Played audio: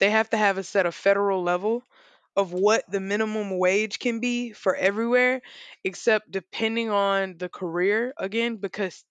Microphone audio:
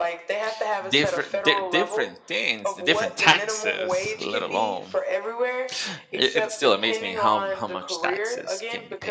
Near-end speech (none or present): present